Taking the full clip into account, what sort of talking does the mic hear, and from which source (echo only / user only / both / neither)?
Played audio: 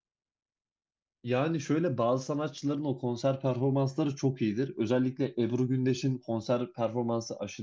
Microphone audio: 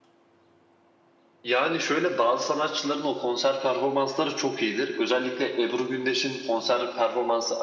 echo only